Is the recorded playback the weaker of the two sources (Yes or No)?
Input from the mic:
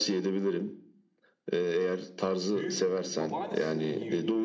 No